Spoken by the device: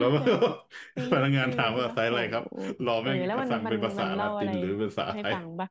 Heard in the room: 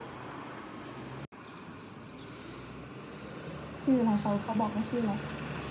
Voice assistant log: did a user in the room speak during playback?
Yes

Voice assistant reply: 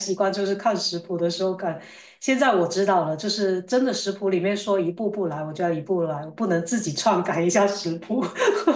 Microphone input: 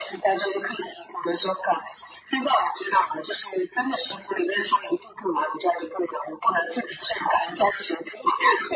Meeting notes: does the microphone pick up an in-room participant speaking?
No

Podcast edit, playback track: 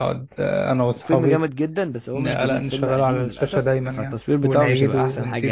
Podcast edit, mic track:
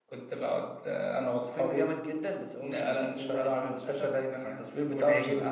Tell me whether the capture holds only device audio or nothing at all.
Yes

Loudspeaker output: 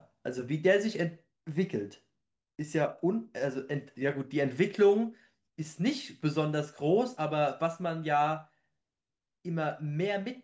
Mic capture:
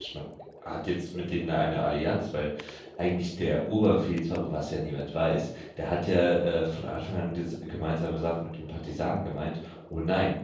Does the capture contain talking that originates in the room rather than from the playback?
Yes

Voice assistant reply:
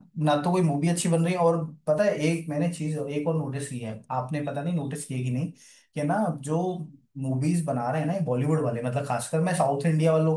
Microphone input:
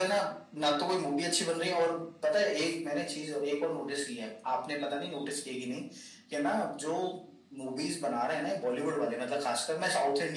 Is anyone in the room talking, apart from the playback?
No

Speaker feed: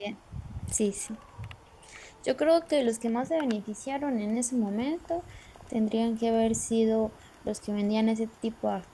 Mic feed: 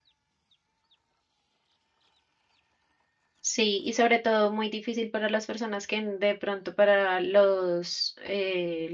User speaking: Yes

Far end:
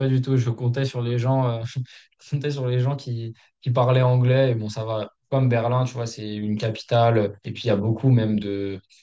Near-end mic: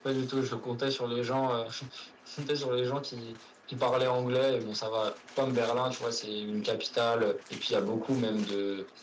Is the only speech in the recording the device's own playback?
Yes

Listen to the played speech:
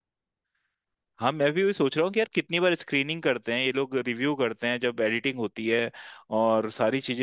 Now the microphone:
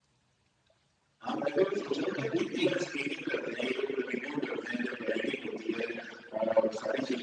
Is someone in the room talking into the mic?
Yes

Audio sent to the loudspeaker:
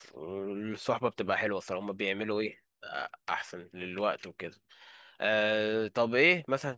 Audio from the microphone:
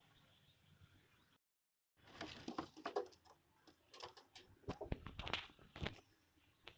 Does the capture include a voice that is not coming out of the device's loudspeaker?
No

